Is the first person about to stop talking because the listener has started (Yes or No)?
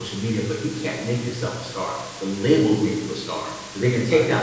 No